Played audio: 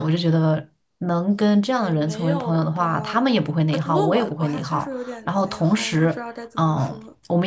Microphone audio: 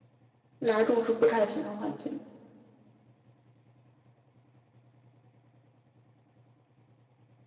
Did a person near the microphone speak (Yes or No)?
Yes